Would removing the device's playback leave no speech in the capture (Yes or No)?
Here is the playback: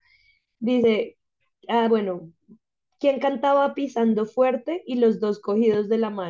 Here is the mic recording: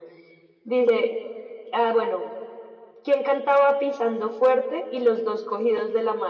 Yes